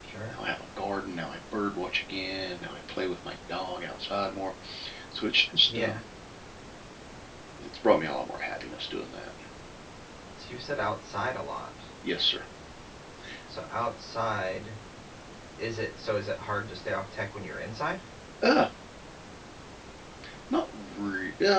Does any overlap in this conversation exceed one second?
No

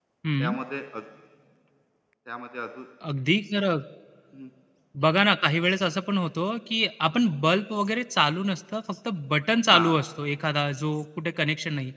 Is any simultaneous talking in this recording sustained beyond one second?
No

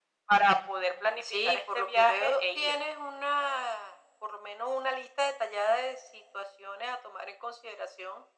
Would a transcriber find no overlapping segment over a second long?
No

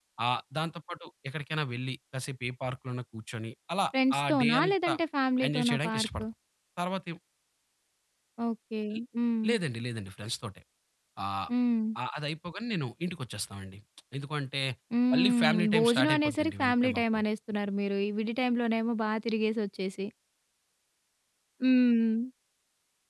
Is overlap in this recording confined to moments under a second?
No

